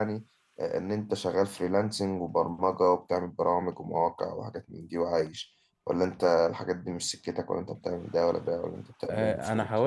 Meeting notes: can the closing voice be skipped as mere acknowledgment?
No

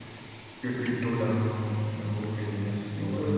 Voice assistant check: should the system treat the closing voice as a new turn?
Yes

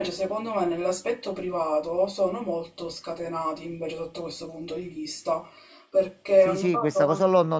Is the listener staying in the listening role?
No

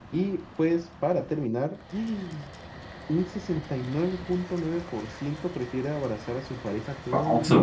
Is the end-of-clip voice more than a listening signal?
Yes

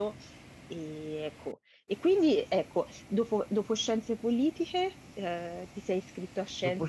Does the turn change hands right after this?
Yes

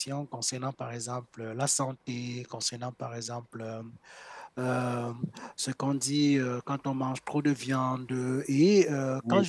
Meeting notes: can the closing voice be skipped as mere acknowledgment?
Yes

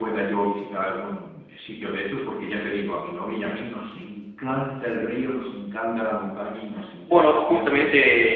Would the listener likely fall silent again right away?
No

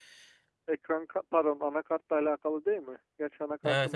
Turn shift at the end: Yes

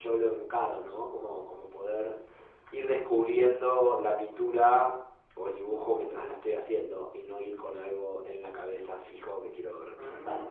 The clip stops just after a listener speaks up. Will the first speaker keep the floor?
No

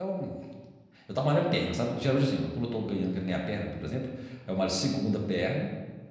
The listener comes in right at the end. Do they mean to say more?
No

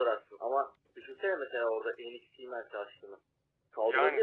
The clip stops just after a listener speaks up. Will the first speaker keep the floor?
No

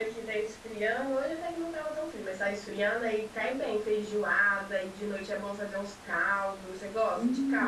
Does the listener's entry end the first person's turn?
Yes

